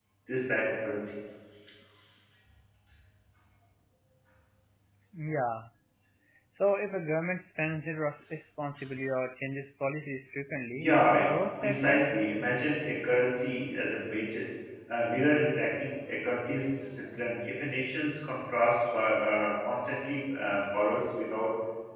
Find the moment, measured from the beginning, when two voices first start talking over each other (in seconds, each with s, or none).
10.8 s